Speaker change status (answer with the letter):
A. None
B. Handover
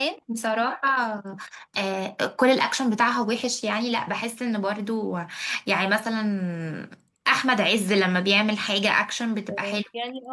B